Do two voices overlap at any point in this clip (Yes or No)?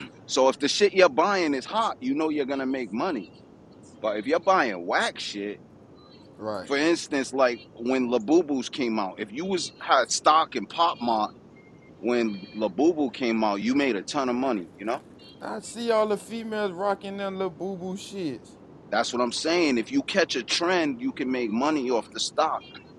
No